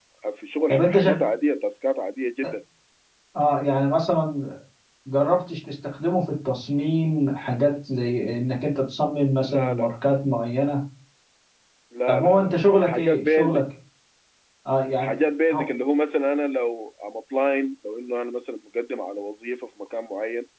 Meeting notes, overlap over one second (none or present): present